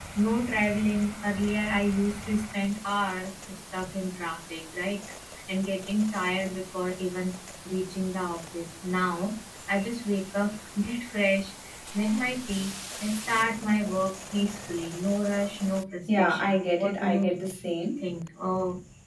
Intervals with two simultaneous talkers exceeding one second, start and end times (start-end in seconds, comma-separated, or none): 16.1-17.4